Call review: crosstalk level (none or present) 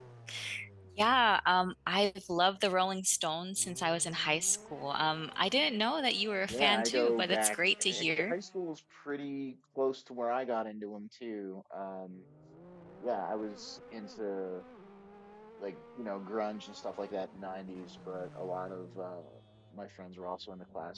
present